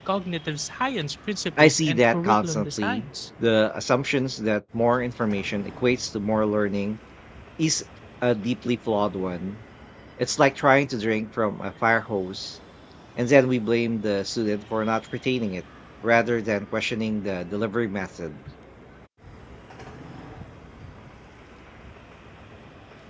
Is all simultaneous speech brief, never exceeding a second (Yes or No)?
No